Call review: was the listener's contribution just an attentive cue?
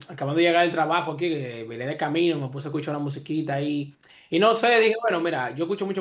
Yes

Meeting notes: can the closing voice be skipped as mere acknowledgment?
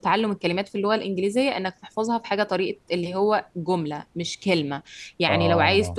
Yes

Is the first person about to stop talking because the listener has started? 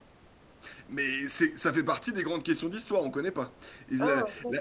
Yes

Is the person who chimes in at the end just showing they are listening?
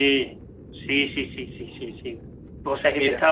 Yes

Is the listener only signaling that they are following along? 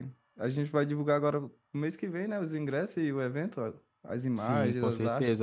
No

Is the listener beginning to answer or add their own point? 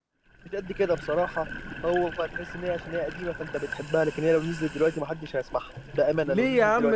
Yes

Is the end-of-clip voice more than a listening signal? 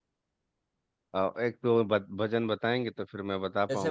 Yes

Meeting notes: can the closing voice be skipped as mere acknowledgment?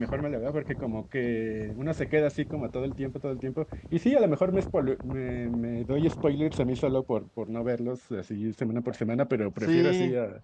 No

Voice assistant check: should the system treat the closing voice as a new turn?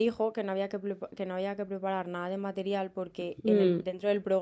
No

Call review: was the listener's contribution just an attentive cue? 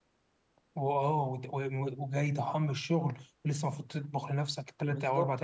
No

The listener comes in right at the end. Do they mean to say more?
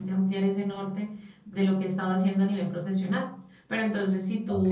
No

